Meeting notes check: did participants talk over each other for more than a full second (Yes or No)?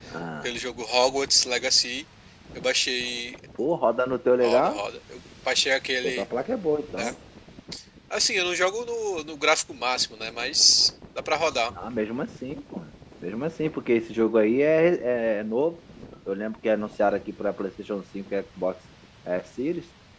No